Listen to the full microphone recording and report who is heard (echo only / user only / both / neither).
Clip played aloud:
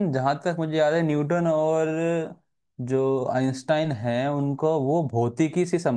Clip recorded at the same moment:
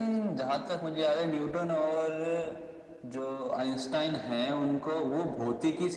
echo only